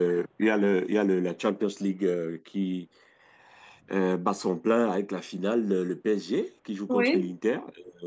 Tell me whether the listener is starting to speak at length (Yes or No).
No